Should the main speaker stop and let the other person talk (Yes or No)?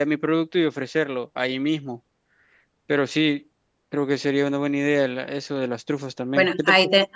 Yes